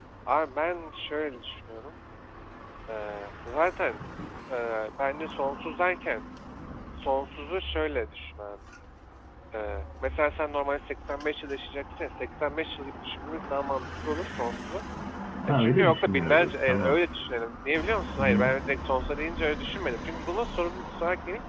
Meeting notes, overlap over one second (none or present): present